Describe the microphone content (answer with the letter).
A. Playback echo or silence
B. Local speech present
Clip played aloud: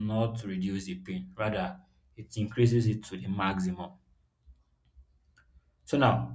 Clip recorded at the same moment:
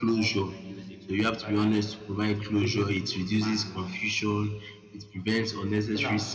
B